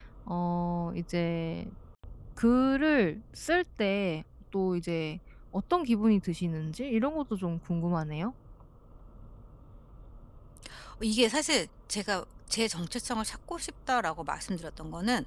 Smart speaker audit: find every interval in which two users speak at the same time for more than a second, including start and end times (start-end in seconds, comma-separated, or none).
none